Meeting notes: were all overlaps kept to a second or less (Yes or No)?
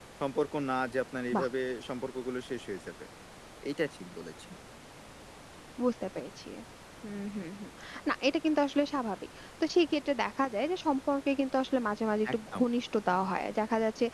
Yes